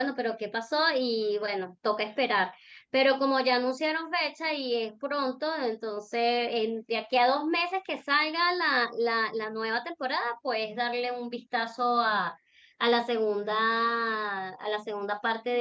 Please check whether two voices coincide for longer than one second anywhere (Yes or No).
No